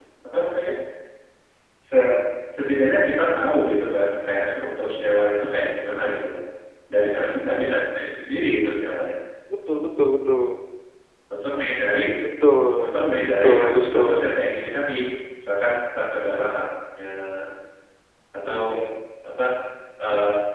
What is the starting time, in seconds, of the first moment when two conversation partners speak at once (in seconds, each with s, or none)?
12.8 s